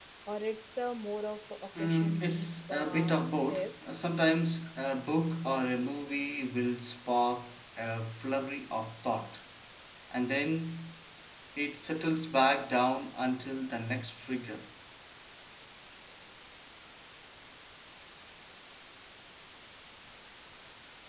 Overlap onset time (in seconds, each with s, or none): 1.8 s